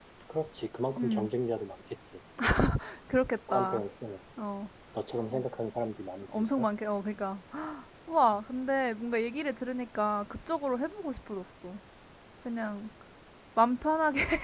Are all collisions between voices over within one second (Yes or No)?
Yes